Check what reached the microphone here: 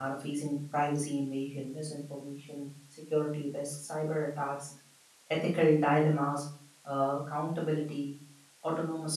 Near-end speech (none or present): present